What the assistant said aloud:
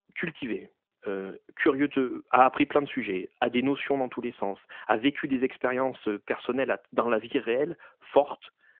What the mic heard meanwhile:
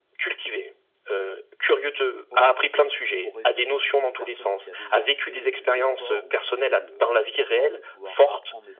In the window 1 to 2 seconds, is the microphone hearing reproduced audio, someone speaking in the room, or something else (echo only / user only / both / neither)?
echo only